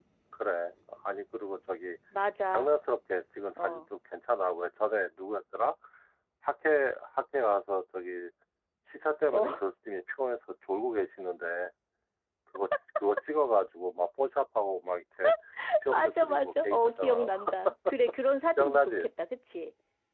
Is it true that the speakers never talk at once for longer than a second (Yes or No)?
No